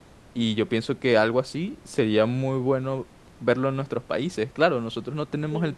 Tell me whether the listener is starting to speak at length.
No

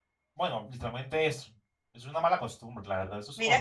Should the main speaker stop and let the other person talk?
Yes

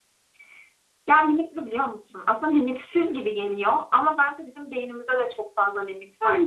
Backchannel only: No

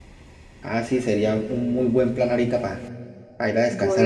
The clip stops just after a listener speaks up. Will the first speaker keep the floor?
No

